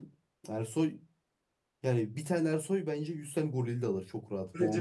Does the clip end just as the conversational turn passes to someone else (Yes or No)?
Yes